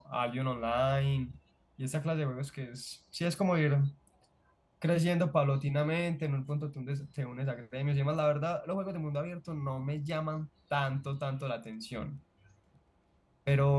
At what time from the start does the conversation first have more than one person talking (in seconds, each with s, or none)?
none